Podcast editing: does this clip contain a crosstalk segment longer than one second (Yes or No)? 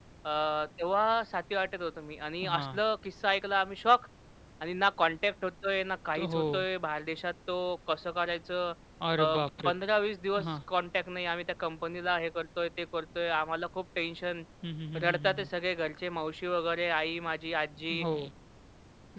No